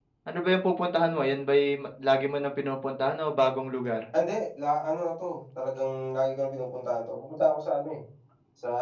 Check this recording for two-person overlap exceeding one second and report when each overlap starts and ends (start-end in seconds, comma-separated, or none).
none